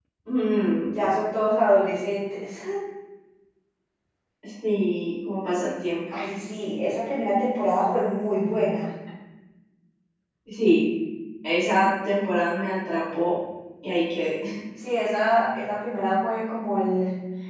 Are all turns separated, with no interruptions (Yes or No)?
Yes